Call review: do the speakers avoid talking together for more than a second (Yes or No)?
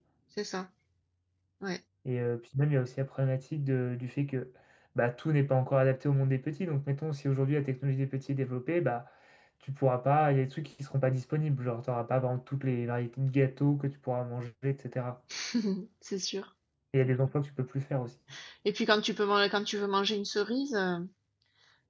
Yes